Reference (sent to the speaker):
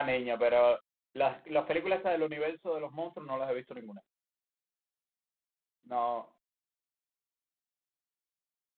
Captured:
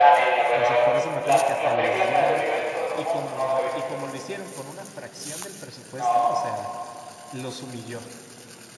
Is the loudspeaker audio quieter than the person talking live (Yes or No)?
No